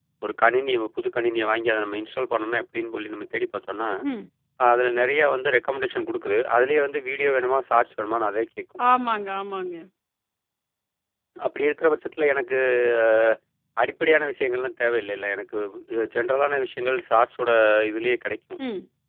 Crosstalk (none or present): none